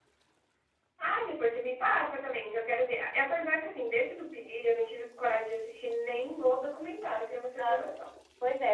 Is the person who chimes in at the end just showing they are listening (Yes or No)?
No